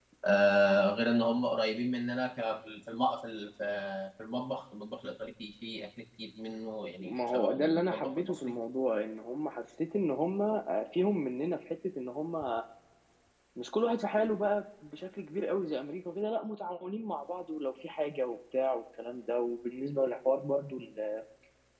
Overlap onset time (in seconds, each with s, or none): 7.0 s